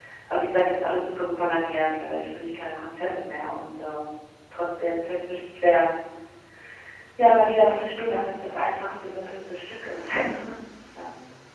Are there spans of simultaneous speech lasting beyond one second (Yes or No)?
No